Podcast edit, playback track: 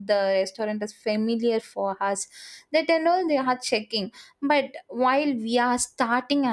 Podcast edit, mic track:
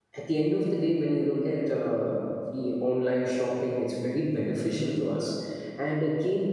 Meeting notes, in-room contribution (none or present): present